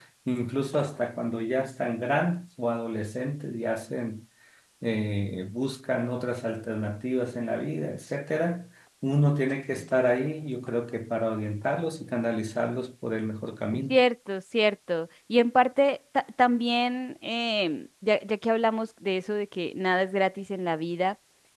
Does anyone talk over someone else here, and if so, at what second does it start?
none

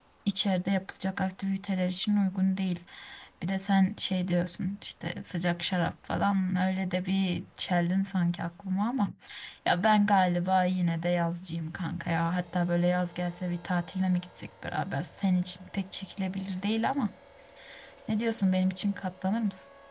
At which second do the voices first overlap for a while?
none

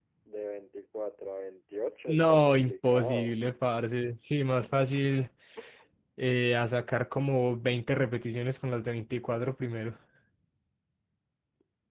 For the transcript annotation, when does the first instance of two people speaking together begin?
2.1 s

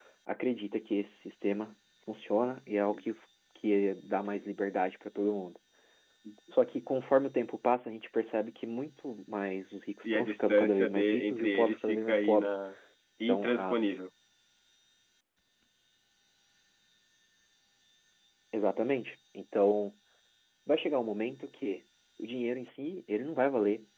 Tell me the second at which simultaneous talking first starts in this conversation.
10.1 s

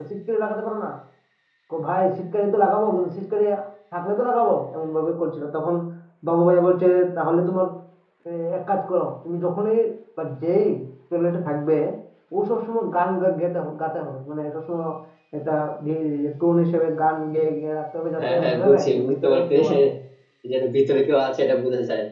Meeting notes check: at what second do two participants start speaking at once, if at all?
18.2 s

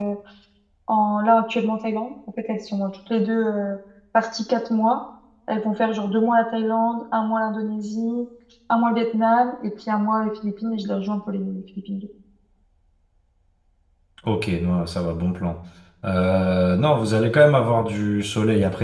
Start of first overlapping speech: none

